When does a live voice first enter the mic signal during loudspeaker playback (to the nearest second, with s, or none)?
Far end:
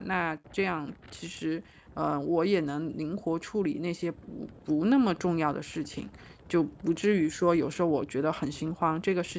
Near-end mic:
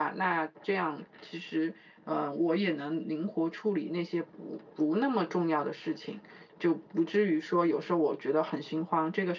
none